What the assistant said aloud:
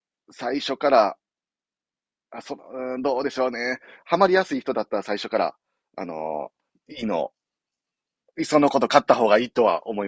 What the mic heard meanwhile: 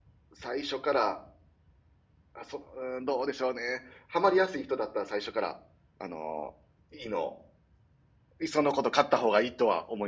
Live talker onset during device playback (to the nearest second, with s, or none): none